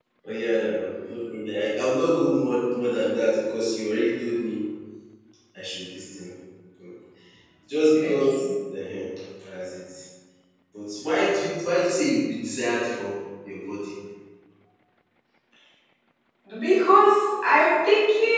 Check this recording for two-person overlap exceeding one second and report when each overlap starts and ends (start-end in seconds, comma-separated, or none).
none